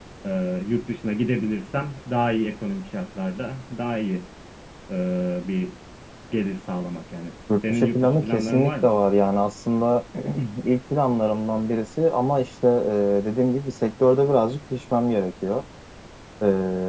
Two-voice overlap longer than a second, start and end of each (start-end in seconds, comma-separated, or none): 7.7-8.9